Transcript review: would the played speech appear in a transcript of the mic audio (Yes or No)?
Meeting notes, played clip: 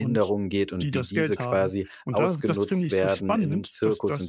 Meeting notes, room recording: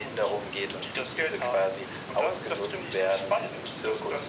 Yes